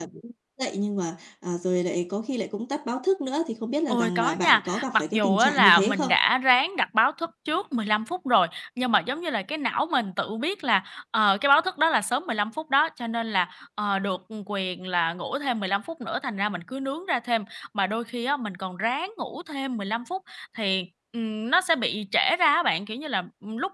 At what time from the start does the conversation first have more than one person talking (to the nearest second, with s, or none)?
4 s